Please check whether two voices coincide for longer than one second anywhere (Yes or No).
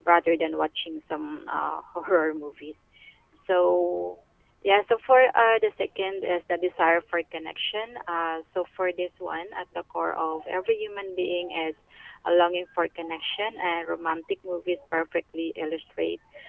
No